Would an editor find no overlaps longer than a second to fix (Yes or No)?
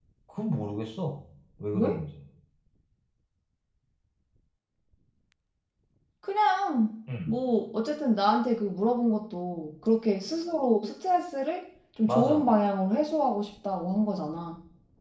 Yes